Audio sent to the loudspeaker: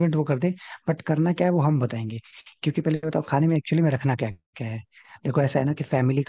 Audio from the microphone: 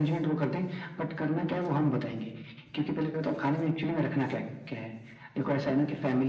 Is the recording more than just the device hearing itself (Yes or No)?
No